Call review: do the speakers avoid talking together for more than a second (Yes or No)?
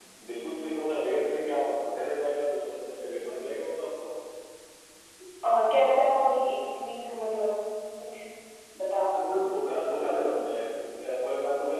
Yes